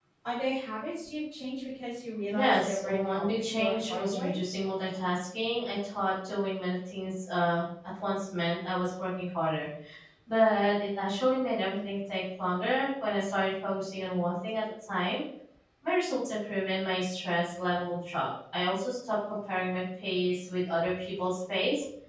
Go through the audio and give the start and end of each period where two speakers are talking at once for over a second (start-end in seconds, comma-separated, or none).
2.3-4.3